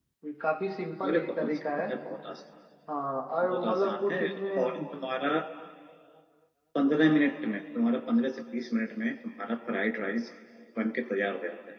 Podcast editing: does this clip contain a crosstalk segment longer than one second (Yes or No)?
Yes